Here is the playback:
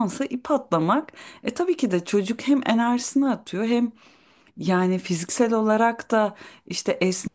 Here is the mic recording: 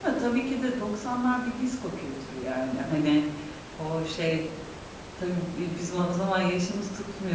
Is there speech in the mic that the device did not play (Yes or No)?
Yes